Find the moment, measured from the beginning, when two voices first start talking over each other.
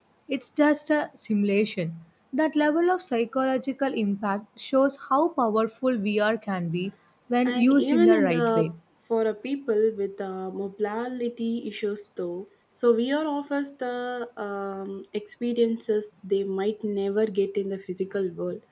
7.5 s

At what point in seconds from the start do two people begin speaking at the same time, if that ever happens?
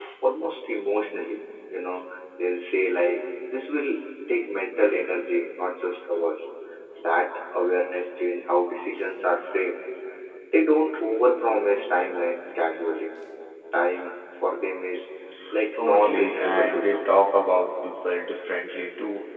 15.8 s

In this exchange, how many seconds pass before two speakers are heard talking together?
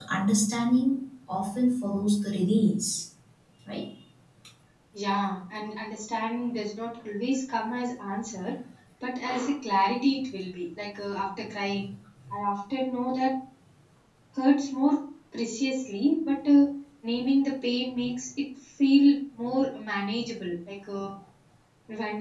none

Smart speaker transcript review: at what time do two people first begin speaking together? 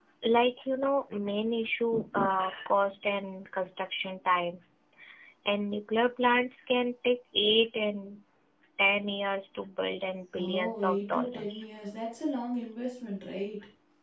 10.4 s

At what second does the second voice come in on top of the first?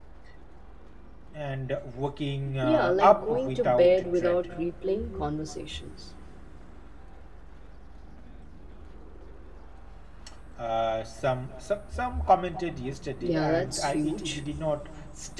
2.6 s

